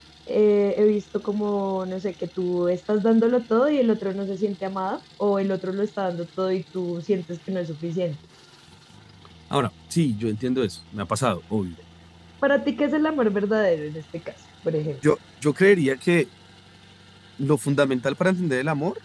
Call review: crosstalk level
none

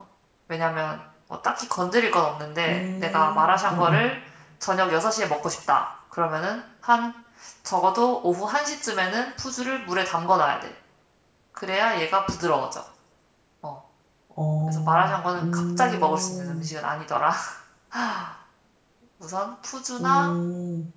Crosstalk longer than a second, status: present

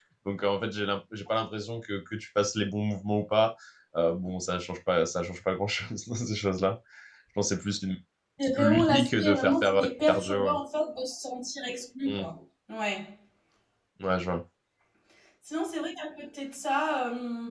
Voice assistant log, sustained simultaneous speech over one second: present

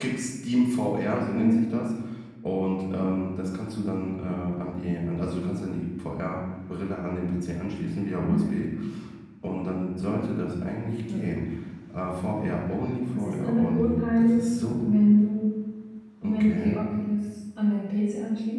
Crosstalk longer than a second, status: present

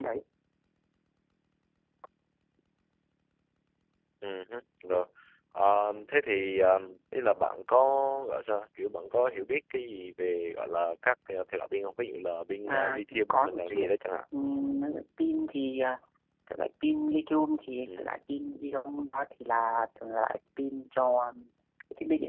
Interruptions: present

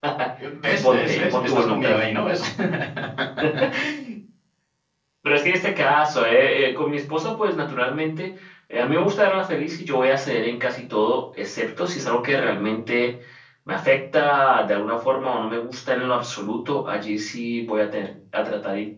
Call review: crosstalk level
present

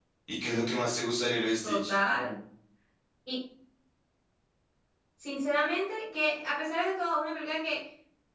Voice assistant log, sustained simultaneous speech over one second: none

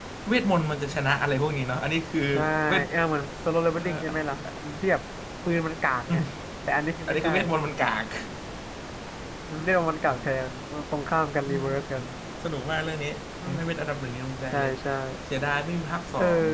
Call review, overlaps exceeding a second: none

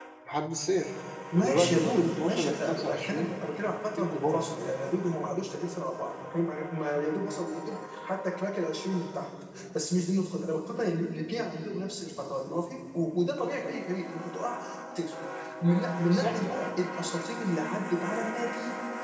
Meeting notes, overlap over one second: present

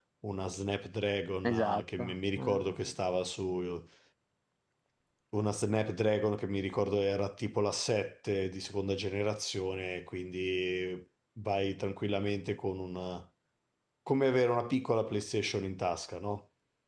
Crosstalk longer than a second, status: present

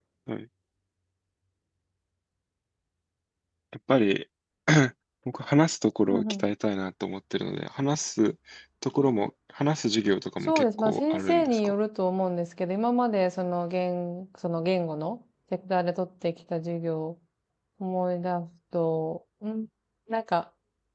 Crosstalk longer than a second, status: present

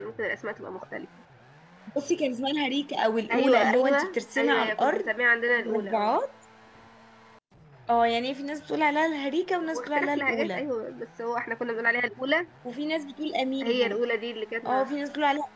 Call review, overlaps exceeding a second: present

